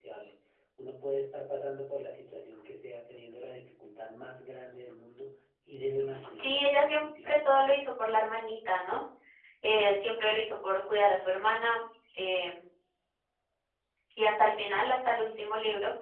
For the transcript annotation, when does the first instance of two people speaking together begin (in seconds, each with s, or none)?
6.4 s